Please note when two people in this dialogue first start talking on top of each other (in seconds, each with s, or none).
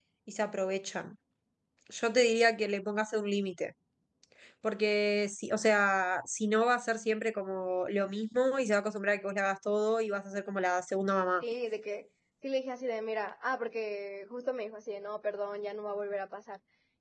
none